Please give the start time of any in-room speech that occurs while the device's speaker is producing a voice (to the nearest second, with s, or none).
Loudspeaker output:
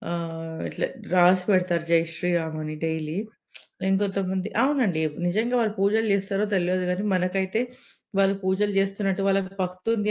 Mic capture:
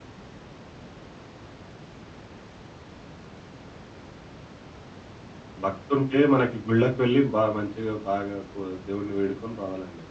6 s